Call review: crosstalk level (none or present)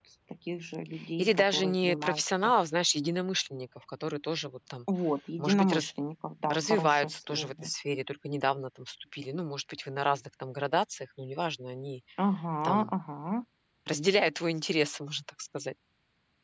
present